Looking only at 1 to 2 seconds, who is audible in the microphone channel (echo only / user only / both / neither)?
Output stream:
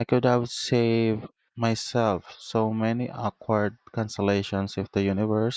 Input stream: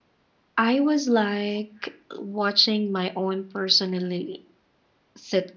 user only